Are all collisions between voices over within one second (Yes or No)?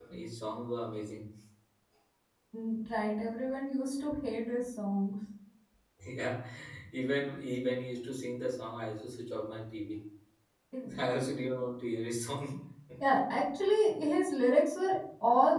Yes